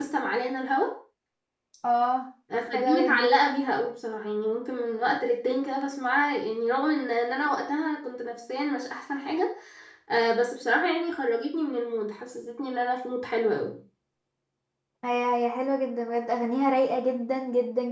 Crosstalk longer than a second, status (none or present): none